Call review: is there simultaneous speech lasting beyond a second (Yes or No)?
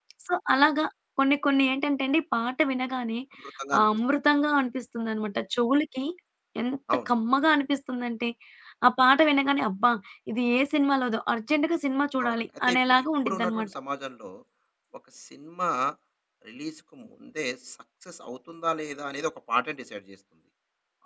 Yes